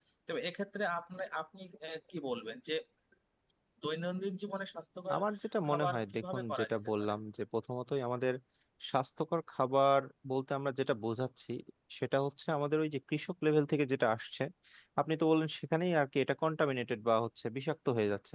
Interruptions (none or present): present